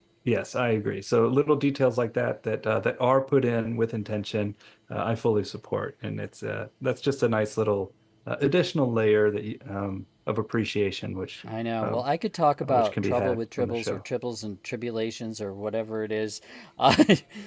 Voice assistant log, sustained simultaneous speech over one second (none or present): present